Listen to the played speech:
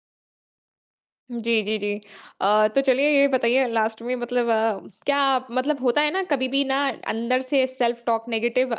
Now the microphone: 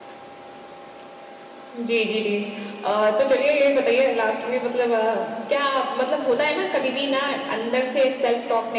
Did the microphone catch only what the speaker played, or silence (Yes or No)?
Yes